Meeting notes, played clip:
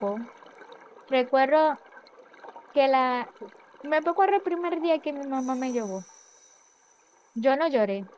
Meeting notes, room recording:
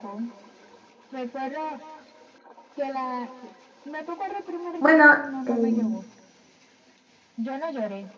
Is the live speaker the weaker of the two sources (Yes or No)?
No